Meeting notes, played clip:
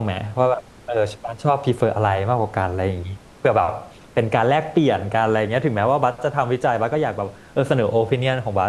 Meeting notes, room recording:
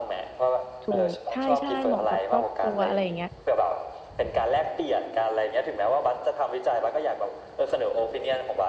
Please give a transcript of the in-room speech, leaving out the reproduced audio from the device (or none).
ถูกใช่ใช่เหมาะกับครอบครัวอะไรอย่างเงี้ย